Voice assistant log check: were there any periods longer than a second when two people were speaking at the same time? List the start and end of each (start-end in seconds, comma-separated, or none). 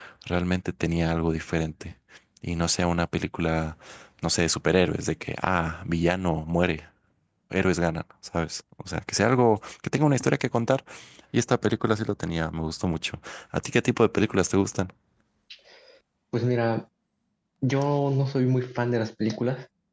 none